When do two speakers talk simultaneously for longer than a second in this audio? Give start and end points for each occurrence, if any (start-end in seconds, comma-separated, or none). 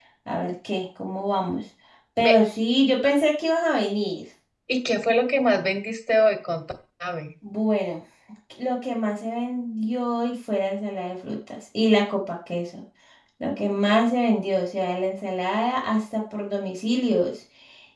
none